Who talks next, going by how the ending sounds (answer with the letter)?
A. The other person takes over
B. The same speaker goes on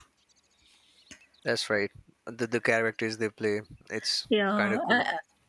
A